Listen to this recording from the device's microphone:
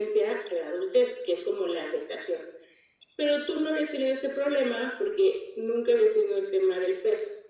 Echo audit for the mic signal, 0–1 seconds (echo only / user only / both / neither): echo only